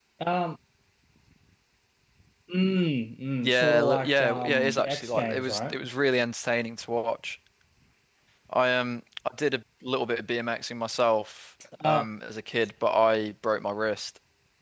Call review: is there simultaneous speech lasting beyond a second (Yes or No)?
Yes